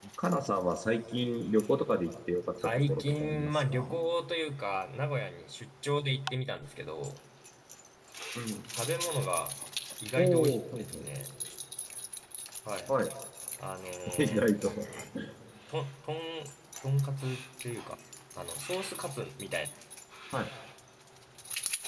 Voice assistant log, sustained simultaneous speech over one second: present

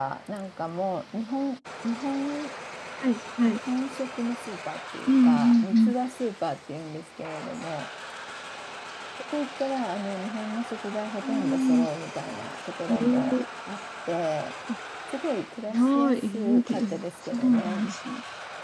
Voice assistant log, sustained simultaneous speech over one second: present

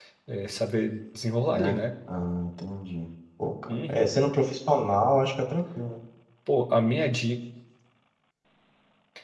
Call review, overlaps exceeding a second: none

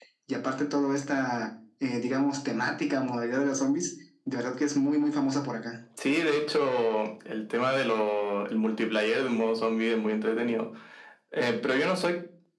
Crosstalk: none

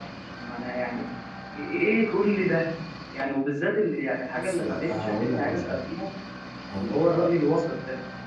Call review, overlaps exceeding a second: present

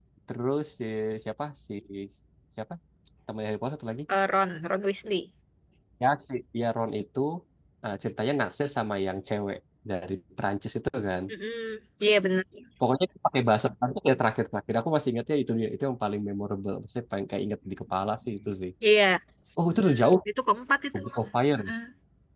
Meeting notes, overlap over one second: none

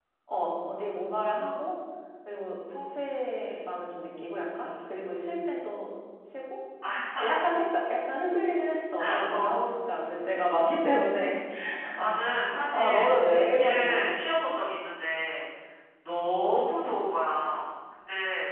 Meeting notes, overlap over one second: present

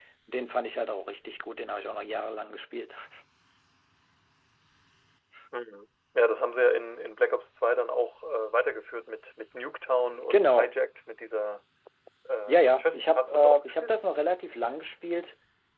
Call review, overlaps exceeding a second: present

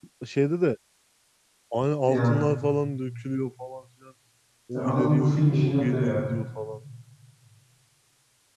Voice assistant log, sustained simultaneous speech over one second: present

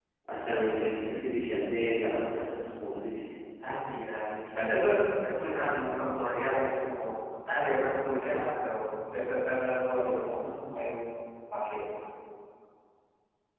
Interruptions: none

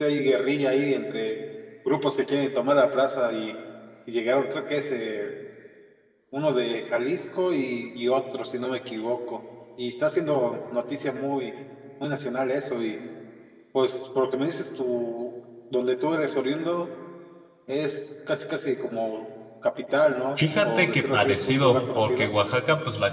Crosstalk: present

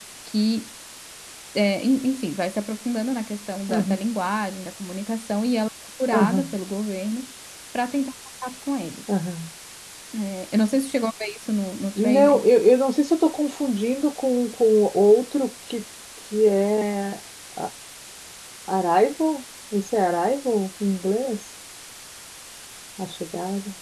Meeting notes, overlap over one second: none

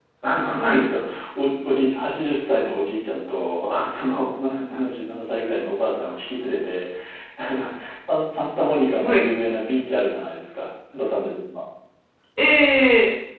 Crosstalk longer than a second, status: none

